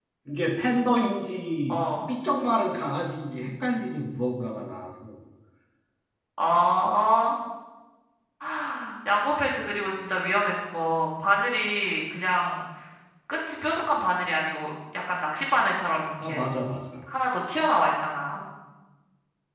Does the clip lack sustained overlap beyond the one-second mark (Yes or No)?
Yes